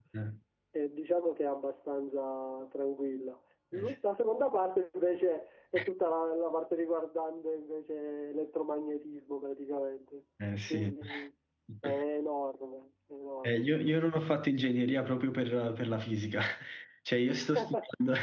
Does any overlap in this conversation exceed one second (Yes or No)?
No